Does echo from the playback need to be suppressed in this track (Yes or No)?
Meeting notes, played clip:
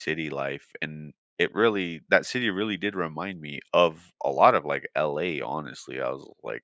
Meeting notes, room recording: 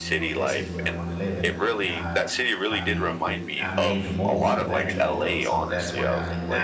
Yes